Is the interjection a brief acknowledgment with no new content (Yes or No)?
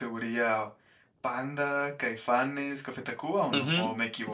No